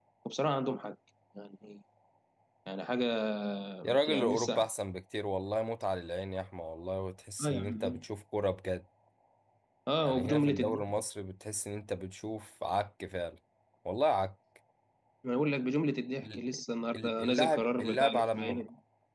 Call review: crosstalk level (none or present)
present